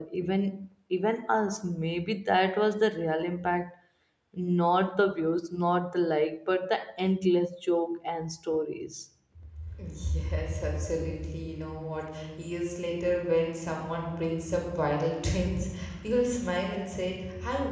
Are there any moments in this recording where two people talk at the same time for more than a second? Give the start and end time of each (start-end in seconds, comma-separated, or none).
none